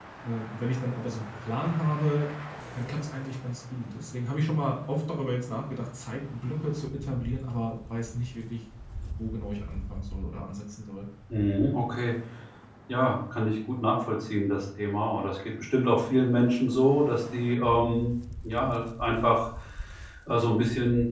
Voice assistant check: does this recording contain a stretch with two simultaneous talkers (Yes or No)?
No